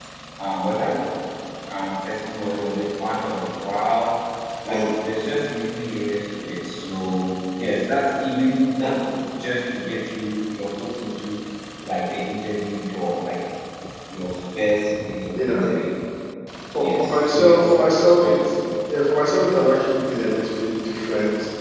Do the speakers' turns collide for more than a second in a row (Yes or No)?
Yes